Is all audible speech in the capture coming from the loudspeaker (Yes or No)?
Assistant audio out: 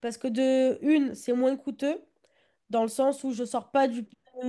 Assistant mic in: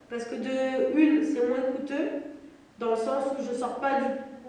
Yes